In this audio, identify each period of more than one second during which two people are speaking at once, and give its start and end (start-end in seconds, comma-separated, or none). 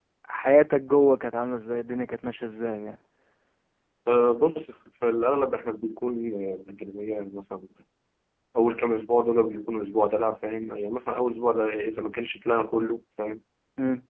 none